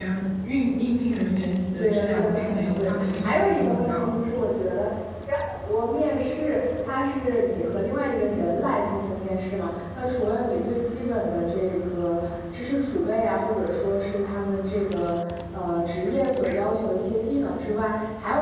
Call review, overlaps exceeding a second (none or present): present